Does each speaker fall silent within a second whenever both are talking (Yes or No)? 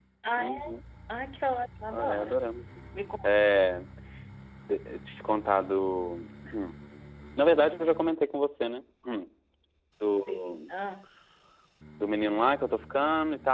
Yes